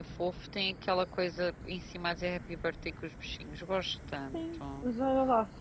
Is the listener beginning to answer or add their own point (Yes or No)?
Yes